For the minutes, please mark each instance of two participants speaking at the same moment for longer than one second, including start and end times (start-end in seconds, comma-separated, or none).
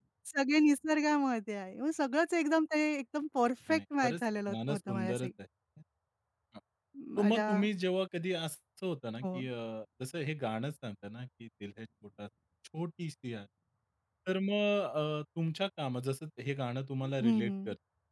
3.7-5.3